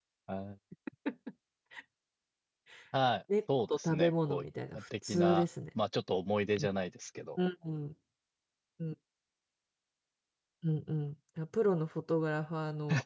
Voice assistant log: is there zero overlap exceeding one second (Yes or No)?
No